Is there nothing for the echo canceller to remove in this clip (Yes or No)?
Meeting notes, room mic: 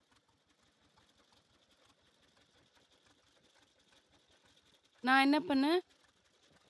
Yes